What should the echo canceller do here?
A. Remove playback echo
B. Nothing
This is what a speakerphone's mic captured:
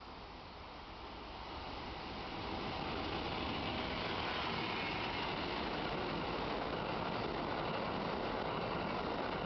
B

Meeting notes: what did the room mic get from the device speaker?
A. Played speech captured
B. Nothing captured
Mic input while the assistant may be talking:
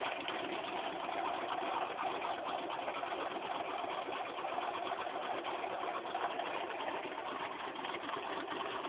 B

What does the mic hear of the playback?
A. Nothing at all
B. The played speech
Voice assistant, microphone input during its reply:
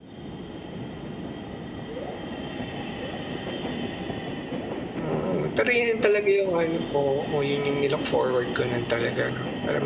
A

